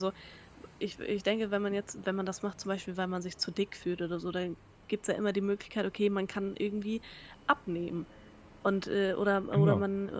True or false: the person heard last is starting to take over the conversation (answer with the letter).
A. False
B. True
A